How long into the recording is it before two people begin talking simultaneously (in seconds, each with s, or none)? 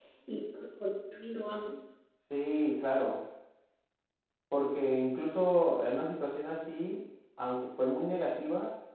none